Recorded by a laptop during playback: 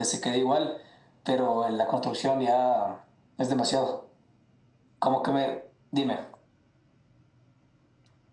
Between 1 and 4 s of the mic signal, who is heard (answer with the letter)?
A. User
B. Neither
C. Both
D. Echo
D